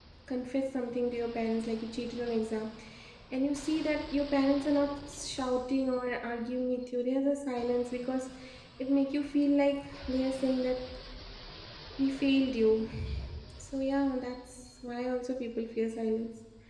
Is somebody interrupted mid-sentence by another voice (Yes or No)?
No